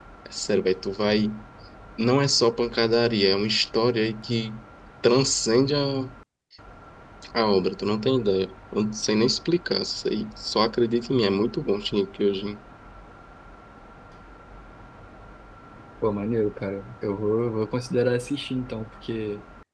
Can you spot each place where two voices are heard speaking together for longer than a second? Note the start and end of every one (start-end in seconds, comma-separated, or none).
none